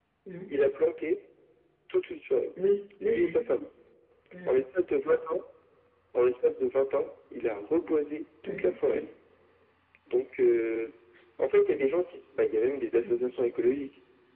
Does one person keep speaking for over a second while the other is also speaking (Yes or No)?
No